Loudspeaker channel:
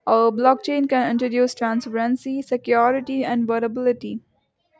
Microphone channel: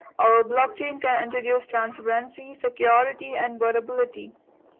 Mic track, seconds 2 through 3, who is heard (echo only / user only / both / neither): echo only